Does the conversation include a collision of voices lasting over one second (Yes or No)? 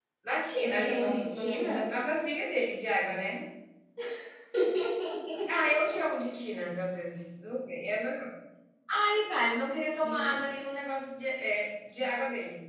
Yes